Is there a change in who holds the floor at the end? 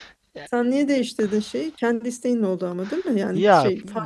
Yes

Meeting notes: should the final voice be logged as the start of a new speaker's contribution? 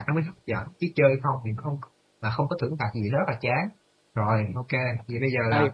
Yes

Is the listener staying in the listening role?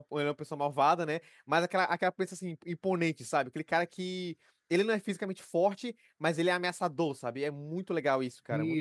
No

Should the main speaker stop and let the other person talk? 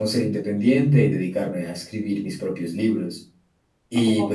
No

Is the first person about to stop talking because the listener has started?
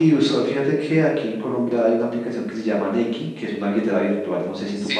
Yes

